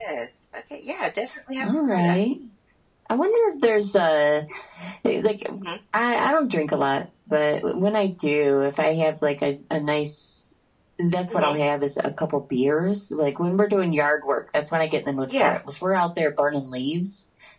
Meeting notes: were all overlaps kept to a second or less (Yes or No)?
Yes